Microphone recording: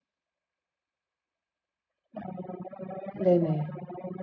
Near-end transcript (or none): 네네.